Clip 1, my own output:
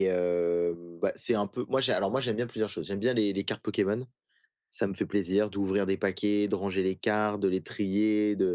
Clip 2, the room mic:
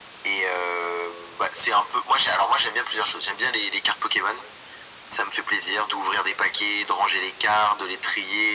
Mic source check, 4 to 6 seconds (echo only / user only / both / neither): echo only